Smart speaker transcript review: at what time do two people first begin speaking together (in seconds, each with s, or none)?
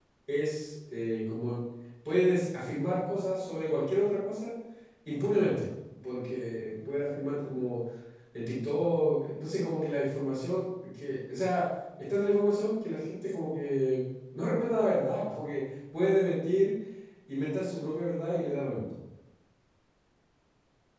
none